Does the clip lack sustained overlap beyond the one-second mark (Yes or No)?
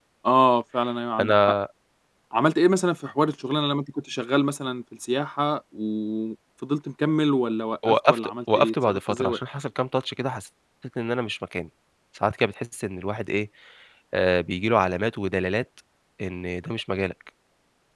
No